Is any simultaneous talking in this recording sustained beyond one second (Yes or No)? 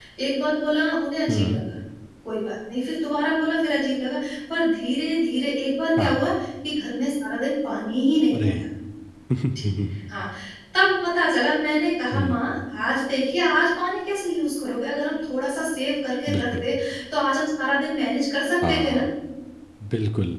No